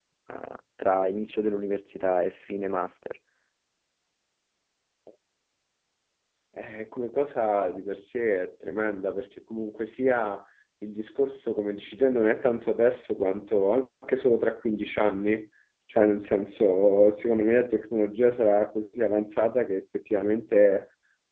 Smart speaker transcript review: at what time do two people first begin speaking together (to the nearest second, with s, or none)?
none